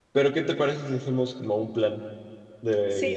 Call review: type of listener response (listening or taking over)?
taking over